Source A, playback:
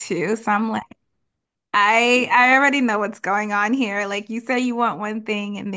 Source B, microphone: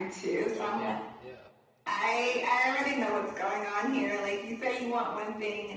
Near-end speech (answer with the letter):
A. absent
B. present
B